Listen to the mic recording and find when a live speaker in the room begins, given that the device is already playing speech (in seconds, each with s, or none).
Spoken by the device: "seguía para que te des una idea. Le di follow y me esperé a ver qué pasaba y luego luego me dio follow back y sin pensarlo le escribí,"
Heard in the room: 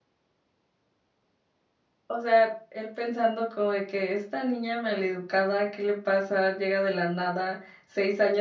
2.1 s